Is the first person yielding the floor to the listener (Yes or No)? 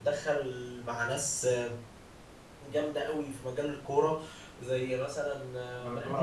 Yes